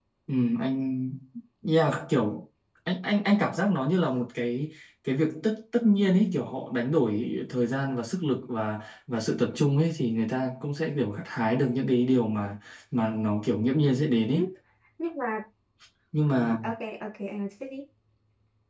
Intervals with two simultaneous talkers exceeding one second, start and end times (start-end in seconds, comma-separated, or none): none